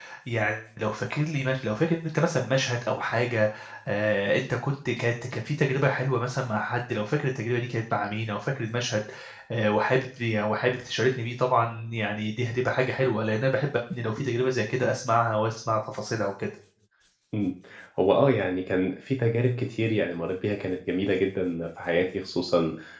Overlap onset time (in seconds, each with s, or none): none